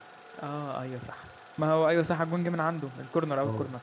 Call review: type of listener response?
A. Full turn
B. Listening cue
A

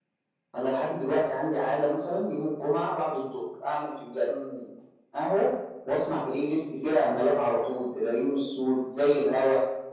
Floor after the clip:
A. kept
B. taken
A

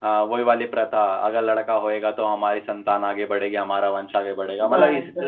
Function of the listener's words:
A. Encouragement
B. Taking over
A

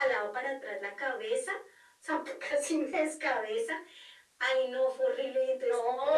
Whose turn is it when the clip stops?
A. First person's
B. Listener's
A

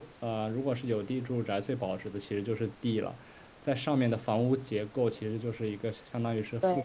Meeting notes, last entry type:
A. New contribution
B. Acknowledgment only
B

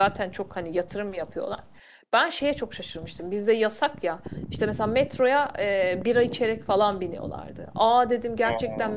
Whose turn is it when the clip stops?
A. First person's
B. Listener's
A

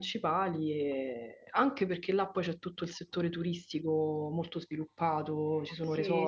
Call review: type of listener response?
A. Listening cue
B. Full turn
B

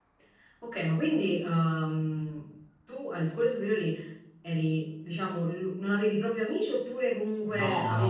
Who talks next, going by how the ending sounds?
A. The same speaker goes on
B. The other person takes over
B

